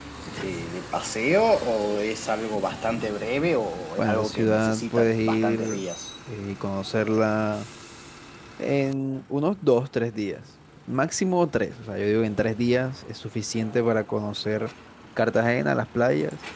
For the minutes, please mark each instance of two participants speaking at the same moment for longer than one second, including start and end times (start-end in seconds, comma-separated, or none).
4.0-5.8